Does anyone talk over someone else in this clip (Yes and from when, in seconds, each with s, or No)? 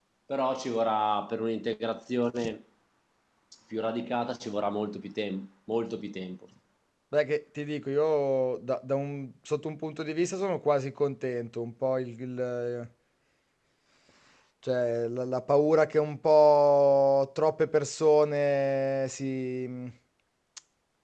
No